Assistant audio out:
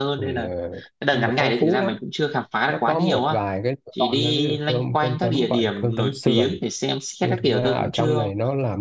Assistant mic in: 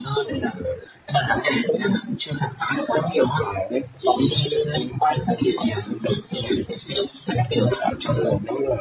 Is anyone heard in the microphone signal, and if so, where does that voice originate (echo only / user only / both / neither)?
echo only